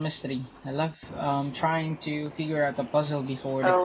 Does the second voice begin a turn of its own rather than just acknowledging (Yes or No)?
Yes